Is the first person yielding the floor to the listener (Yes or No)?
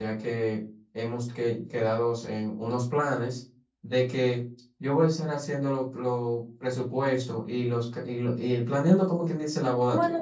Yes